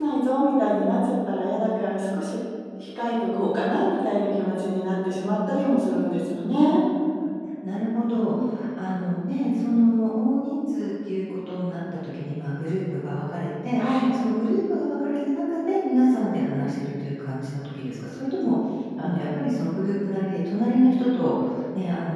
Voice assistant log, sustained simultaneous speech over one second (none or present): none